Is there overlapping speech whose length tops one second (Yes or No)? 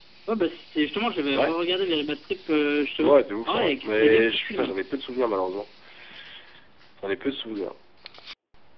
Yes